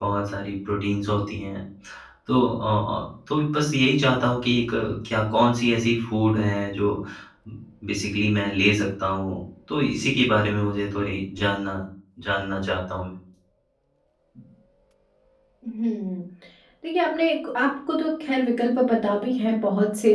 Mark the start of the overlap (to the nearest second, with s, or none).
none